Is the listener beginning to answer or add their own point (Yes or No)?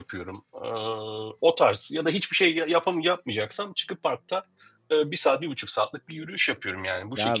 Yes